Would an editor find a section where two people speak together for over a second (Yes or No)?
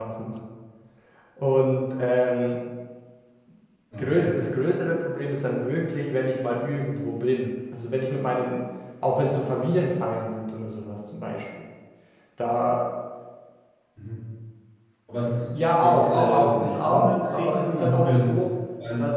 Yes